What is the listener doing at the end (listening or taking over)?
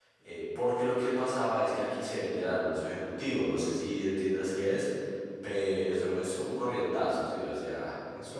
taking over